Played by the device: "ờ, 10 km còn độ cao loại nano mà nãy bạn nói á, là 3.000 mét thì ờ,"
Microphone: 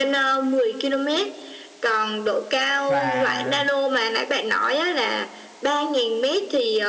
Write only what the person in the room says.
và

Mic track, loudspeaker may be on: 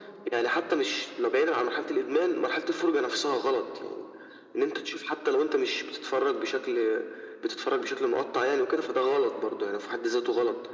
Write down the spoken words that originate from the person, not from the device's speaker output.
none

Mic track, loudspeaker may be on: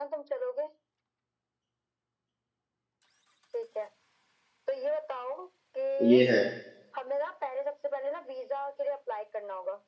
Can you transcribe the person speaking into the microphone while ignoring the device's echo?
ये है

